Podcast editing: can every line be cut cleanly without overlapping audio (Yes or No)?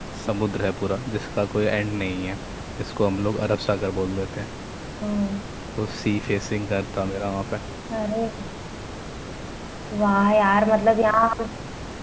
Yes